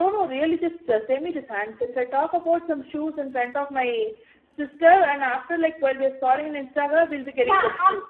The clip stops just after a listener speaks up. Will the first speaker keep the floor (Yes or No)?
No